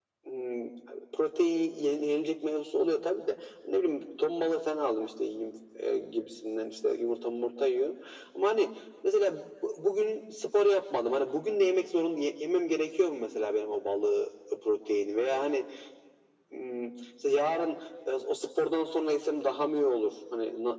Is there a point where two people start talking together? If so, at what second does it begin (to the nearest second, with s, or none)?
none